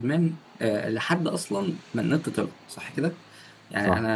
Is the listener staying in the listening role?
Yes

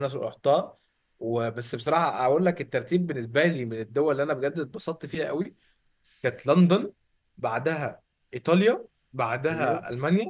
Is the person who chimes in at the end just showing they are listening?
Yes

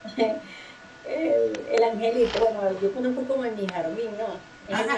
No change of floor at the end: No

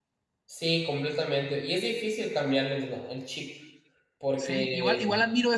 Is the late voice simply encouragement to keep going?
No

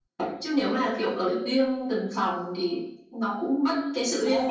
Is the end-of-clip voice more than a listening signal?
Yes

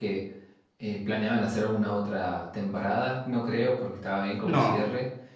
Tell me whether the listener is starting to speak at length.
No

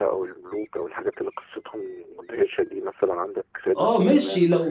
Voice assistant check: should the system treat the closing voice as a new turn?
Yes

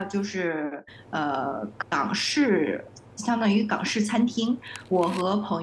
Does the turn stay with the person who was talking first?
Yes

